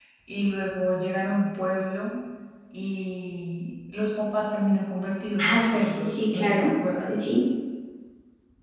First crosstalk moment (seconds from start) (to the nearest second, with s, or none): 5 s